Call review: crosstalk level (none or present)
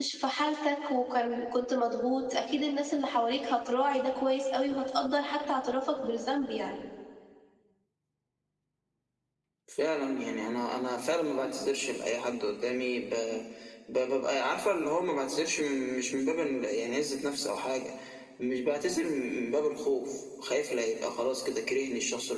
none